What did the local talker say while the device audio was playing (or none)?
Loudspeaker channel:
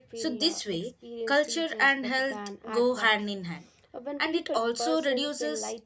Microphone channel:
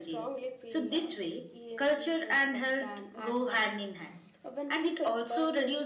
none